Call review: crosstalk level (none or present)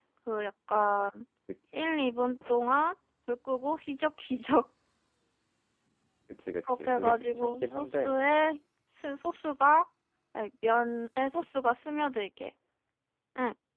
present